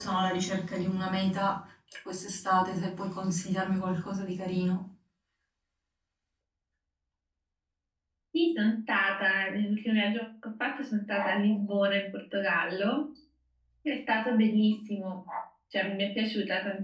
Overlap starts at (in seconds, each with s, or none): none